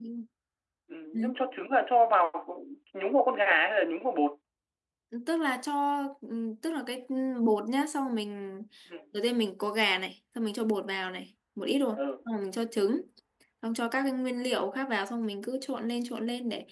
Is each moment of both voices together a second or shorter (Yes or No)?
Yes